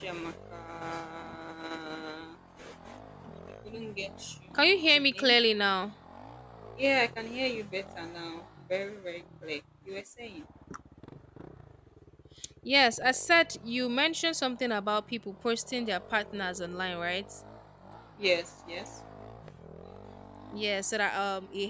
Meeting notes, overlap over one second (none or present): none